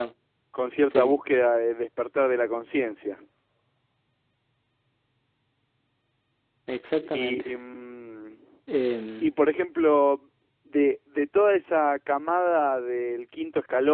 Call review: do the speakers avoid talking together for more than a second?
Yes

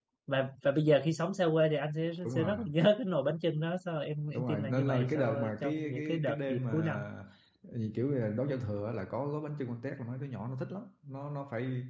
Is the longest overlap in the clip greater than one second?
Yes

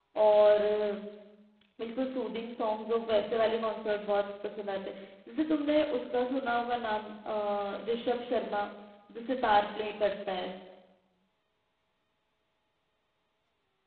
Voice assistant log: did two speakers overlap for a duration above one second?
No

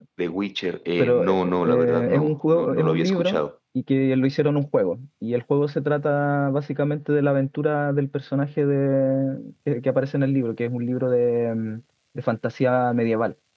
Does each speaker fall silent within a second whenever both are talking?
No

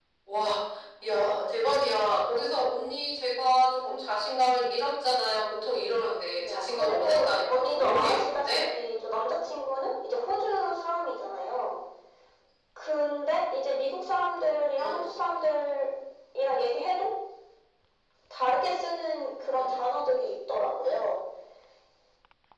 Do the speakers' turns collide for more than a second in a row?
Yes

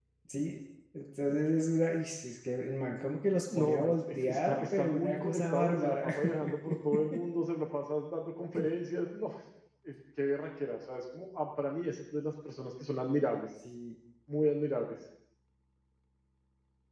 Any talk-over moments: Yes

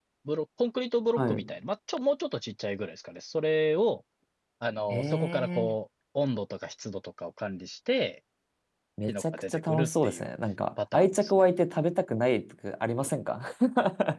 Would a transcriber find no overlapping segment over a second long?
No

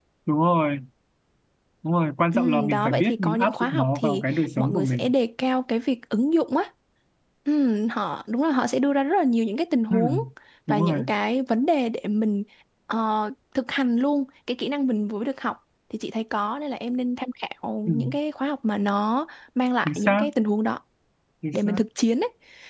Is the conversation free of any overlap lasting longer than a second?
No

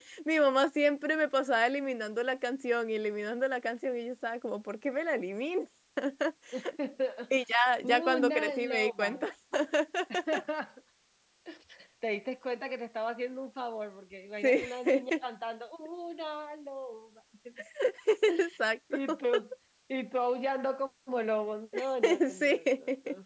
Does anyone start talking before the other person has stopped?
Yes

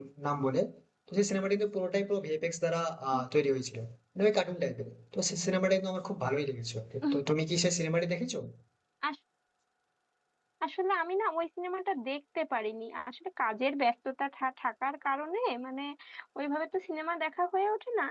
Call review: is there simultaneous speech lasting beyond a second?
No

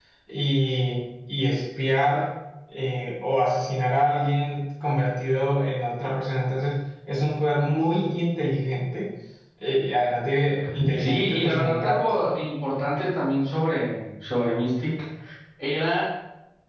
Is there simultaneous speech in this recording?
Yes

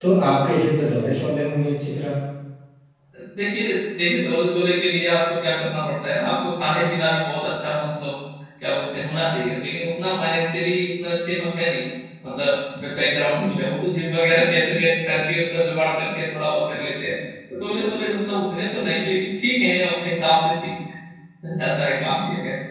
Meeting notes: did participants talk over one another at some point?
No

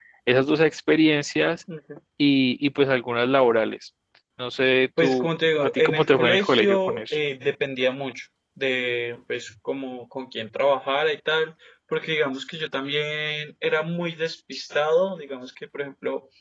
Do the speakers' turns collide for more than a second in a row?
Yes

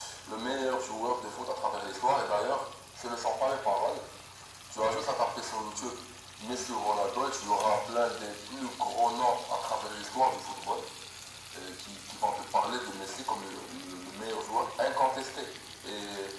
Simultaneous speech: No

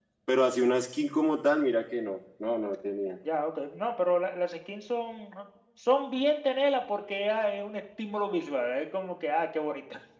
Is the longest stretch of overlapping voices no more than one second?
Yes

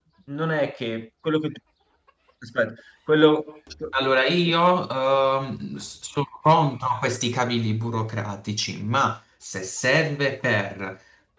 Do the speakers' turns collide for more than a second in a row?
No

